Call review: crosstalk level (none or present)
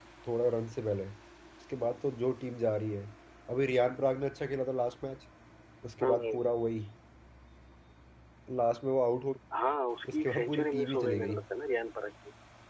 present